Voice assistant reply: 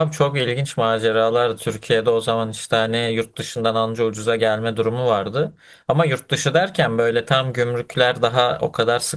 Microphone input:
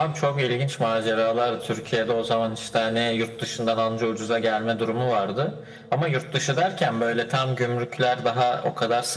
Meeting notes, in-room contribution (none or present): none